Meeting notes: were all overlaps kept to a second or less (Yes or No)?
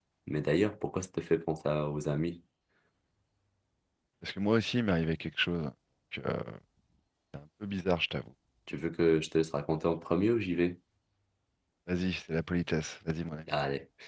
Yes